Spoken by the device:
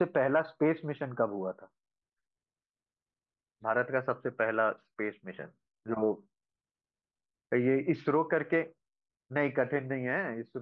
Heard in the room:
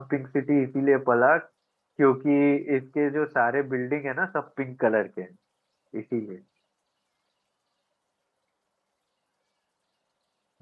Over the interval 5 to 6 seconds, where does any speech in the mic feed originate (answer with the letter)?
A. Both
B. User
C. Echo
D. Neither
B